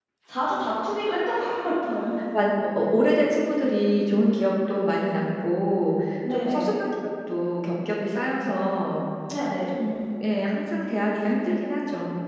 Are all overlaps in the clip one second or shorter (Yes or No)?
Yes